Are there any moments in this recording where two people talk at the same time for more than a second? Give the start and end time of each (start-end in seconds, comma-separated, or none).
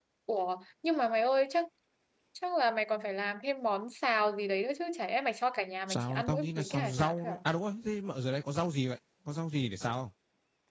5.9-7.4